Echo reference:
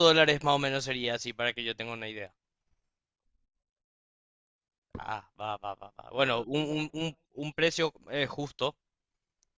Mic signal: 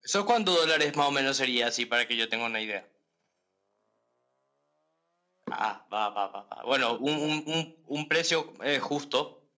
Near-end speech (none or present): none